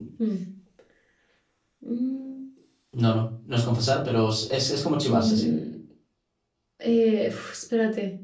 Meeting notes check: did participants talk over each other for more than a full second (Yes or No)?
No